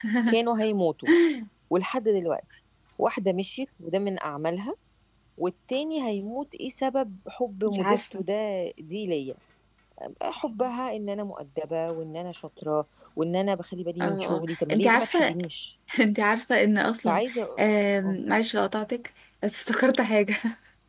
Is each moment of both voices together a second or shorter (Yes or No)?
No